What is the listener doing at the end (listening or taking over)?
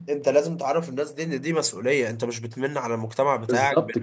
taking over